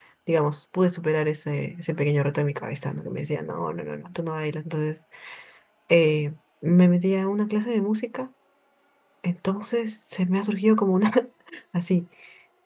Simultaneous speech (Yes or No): No